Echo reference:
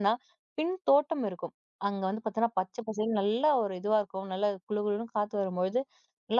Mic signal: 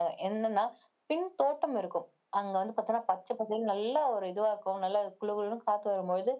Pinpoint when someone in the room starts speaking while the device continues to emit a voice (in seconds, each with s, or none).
none